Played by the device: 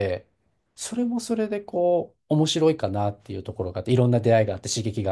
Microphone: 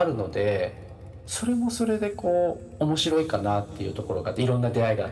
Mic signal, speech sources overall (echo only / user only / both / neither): echo only